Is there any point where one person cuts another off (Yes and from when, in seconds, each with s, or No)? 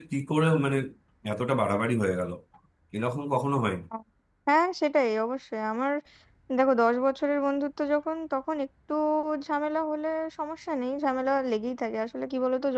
No